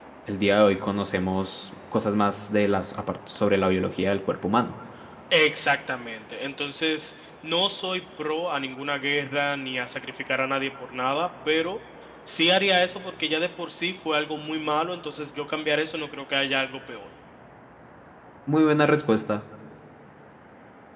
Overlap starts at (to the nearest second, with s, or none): none